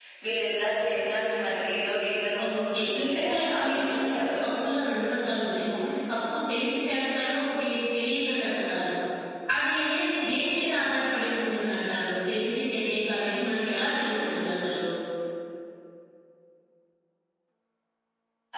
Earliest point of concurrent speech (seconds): 2.4 s

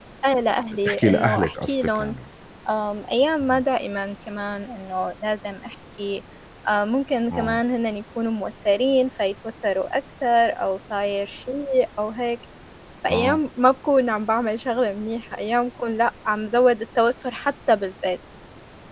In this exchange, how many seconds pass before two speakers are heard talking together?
0.8 s

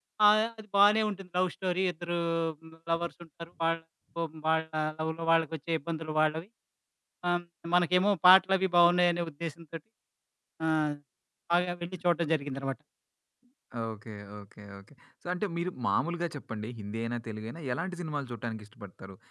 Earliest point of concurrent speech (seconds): none

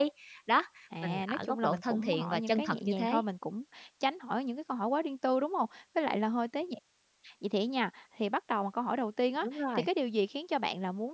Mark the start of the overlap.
1.0 s

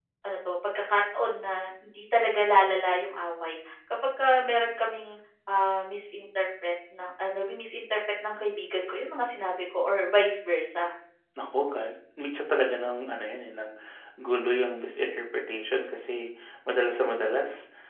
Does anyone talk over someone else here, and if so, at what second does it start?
none

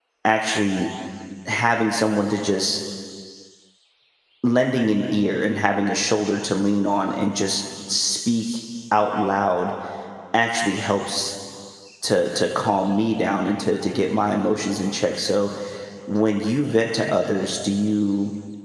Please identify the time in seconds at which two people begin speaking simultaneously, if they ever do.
none

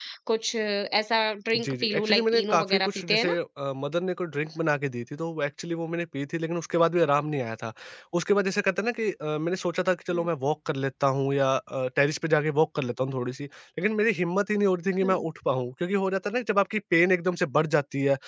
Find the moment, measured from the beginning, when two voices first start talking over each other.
1.5 s

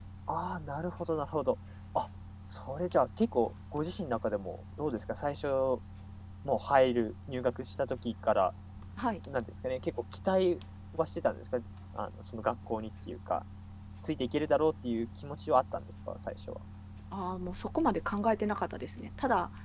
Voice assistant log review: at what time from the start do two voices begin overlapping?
none

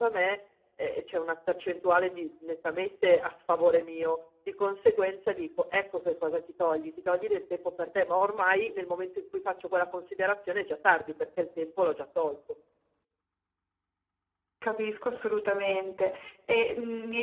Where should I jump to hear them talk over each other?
none

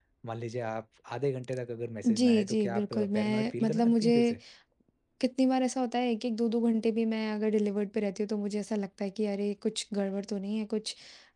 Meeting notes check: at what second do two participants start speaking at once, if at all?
2.0 s

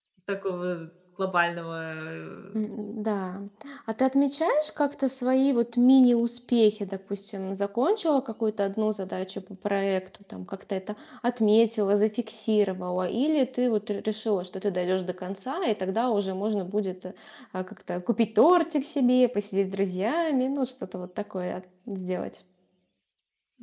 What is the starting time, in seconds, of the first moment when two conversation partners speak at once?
none

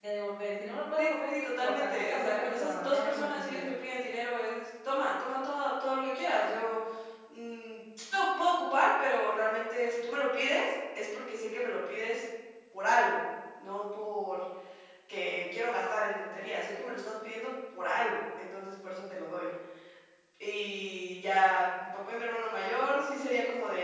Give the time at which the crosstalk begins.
1.0 s

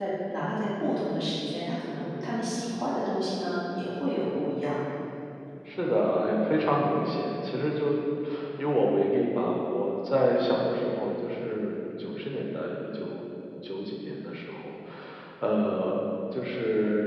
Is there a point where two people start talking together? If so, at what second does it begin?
none

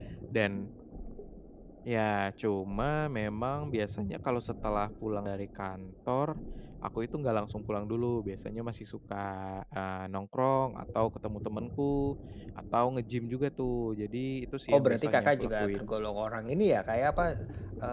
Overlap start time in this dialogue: 14.7 s

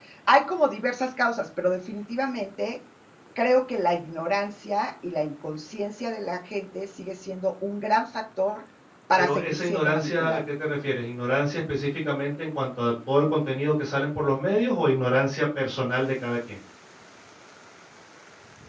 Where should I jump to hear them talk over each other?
9.2 s

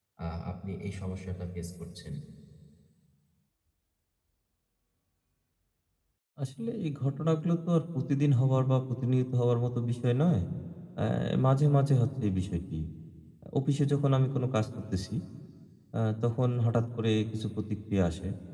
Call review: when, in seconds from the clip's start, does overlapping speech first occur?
none

